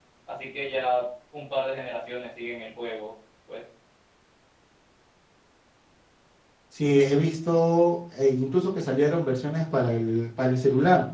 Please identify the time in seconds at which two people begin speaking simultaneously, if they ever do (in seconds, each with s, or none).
none